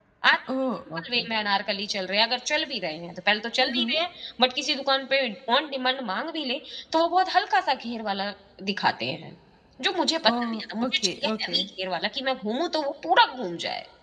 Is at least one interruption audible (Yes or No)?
Yes